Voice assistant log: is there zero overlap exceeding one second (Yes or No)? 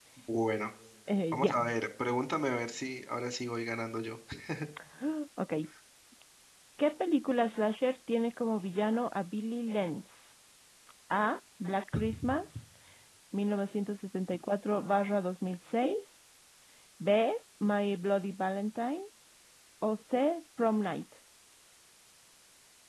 Yes